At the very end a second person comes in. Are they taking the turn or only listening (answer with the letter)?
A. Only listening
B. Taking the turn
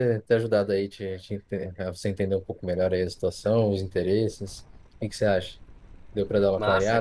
B